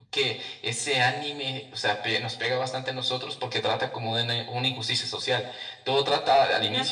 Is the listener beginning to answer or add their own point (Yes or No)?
No